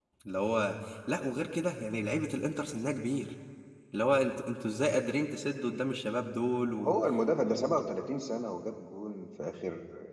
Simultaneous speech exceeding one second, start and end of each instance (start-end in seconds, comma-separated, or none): none